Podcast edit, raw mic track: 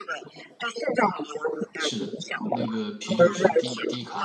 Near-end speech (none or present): present